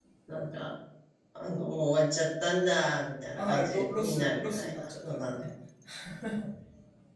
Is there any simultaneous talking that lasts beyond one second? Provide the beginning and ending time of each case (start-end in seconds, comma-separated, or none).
3.3-5.4